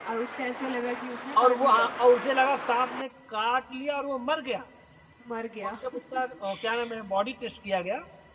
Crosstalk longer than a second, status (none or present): none